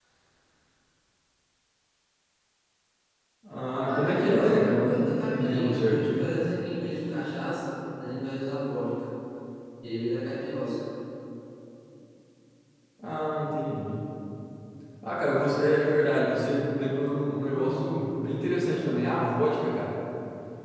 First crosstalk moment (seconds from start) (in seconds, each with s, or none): 3.9 s